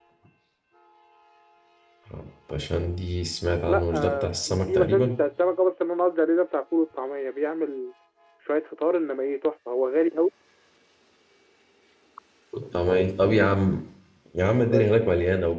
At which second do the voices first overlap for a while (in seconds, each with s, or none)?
3.7 s